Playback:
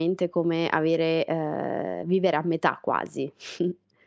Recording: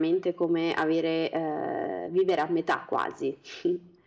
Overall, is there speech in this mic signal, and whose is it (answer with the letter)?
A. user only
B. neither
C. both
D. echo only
D